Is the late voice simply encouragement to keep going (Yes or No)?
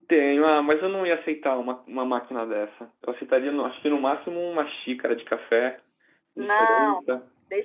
No